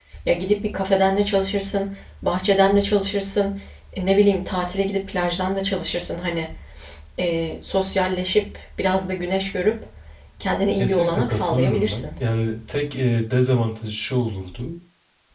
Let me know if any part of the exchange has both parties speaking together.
Yes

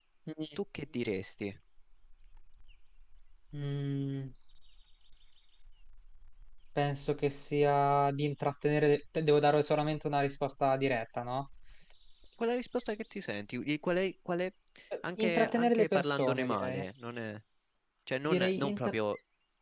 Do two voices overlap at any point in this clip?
Yes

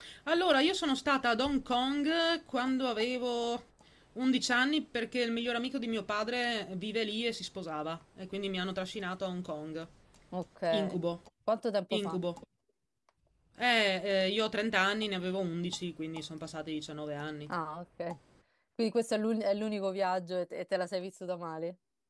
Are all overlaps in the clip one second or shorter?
Yes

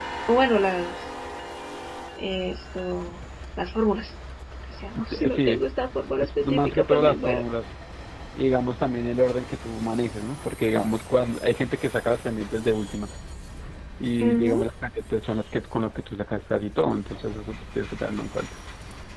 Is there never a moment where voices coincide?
No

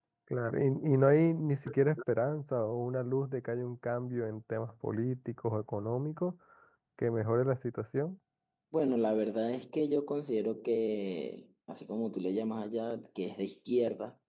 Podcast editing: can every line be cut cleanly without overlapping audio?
Yes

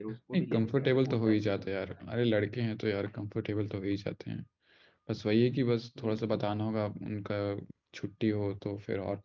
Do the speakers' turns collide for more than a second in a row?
Yes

